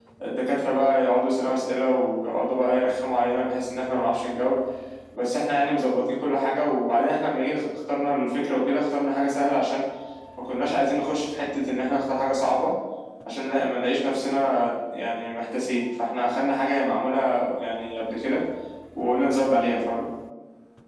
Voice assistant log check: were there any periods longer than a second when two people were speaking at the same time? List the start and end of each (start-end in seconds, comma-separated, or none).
none